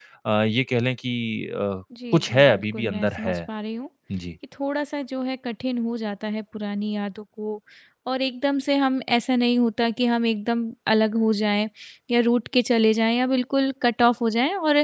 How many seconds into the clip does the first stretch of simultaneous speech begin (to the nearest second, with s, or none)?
2 s